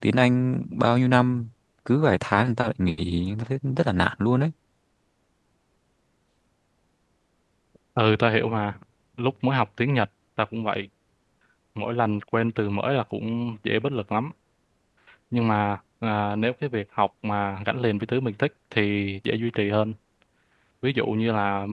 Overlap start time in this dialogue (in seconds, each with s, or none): none